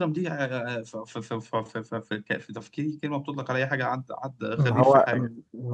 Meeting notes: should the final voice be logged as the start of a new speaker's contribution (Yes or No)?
Yes